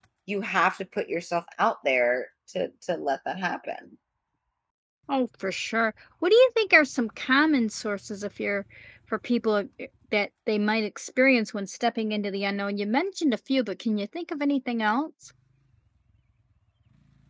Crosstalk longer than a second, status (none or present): none